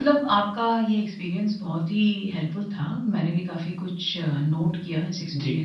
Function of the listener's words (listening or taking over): listening